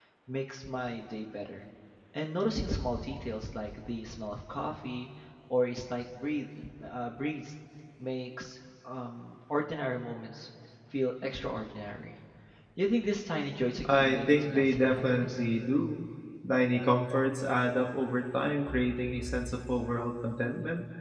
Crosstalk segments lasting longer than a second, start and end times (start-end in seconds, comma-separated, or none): 13.9-15.4